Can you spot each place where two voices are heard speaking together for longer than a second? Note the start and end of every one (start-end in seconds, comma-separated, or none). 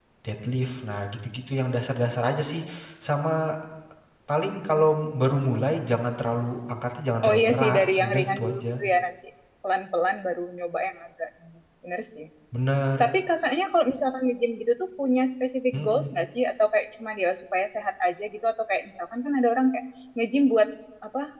7.2-8.6